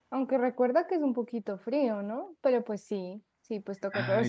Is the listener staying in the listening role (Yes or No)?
Yes